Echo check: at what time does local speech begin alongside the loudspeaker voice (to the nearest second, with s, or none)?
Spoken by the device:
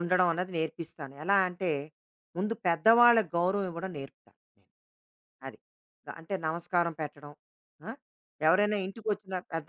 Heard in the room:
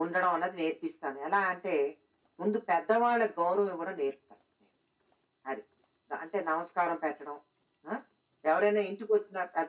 none